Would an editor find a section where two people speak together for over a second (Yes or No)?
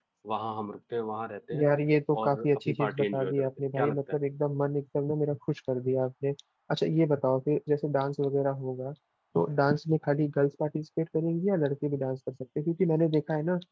Yes